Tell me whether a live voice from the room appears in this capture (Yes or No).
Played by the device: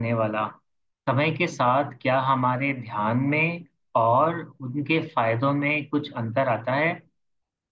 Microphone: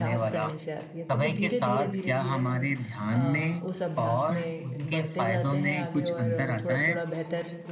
Yes